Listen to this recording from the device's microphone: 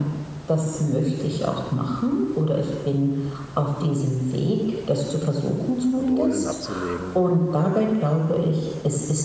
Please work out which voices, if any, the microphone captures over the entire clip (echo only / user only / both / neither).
both